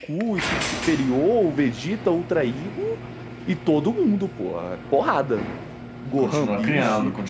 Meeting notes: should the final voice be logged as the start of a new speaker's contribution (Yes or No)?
Yes